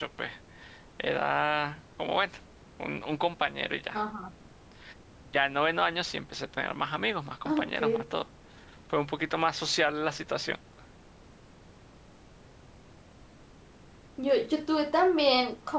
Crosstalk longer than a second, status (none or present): none